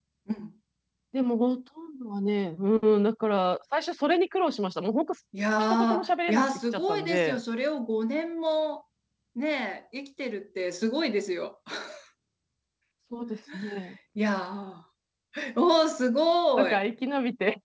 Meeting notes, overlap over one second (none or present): present